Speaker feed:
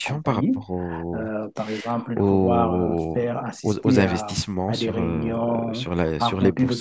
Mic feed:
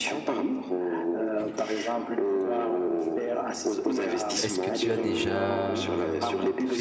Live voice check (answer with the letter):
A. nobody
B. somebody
B